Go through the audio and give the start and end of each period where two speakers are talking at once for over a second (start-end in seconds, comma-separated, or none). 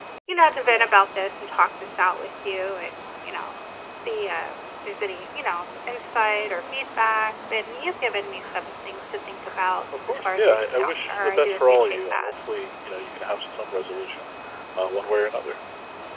10.1-12.3